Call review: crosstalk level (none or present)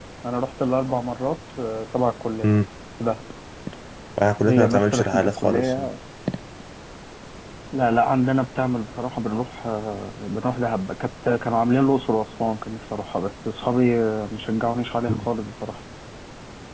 present